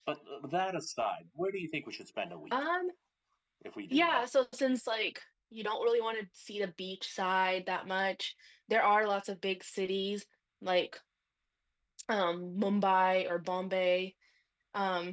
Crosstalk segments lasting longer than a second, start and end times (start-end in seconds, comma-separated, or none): none